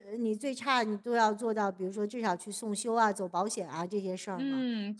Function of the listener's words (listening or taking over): taking over